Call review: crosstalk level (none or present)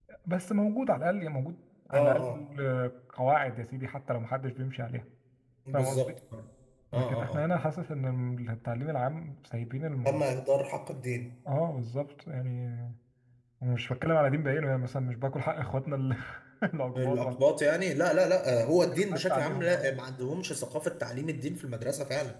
present